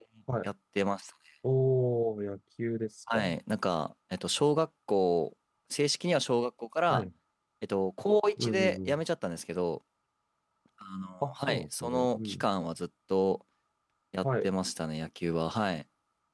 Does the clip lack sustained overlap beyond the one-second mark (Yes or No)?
No